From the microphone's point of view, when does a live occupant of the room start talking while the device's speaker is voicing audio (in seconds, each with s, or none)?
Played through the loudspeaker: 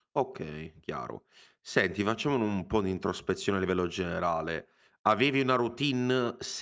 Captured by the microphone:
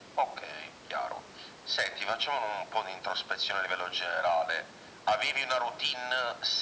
none